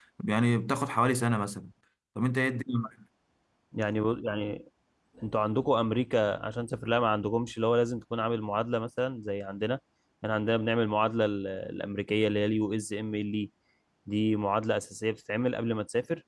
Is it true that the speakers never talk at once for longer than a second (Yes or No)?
Yes